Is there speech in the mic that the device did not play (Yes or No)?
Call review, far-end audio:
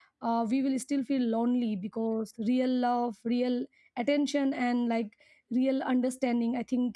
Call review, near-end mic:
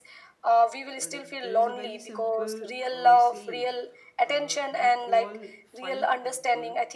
Yes